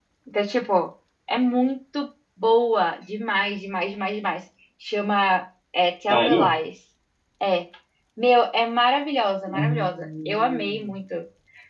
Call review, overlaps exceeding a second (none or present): present